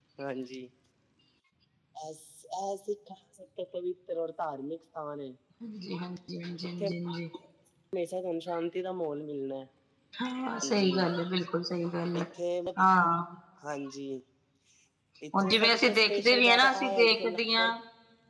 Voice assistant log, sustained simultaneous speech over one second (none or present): present